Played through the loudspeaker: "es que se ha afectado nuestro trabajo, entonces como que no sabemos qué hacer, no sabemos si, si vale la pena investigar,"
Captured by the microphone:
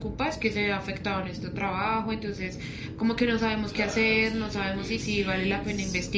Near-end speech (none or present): present